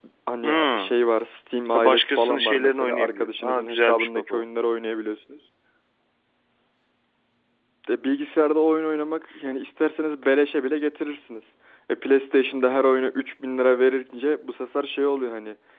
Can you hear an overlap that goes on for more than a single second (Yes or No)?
Yes